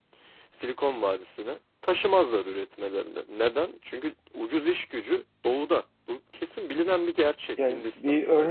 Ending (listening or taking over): taking over